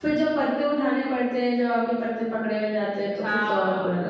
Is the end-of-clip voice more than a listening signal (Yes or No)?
Yes